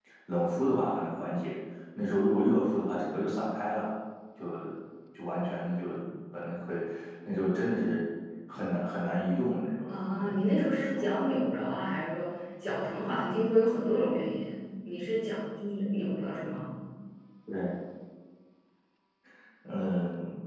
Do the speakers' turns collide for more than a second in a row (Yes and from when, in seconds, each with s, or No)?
Yes, from 9.9 s